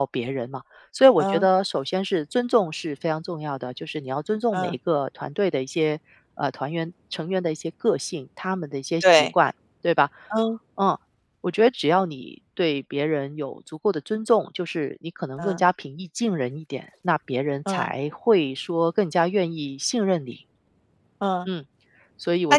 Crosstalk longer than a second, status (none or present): none